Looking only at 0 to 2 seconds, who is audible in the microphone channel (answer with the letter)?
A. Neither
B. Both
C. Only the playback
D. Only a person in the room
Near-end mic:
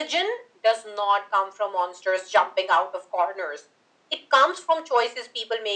C